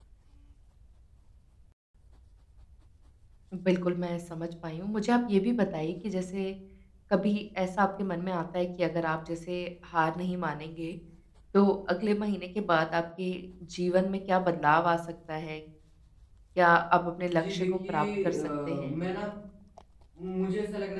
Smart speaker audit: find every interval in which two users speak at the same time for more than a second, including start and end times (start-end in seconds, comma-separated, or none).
17.4-19.0